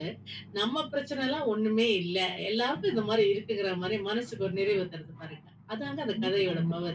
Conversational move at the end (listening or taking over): taking over